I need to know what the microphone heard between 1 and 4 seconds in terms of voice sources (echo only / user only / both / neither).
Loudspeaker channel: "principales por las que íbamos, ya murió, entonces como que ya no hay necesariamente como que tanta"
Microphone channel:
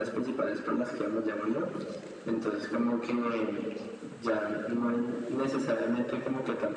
echo only